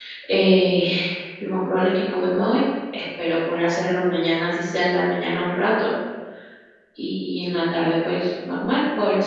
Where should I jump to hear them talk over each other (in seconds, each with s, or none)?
none